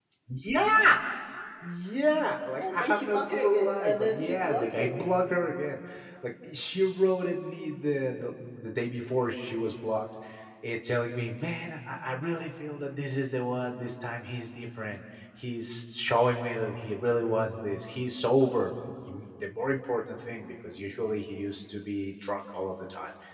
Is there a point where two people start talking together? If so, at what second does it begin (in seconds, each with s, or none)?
2.6 s